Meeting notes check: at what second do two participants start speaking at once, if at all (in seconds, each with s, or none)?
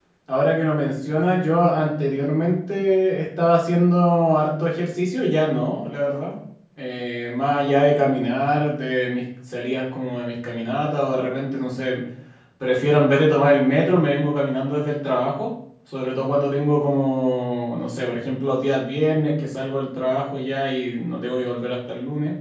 none